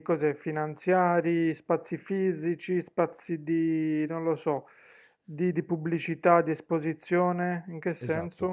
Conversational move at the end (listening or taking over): taking over